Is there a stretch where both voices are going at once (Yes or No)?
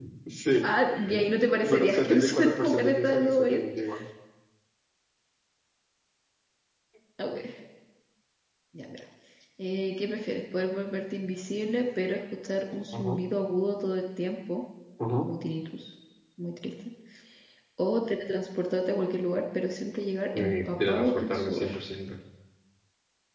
Yes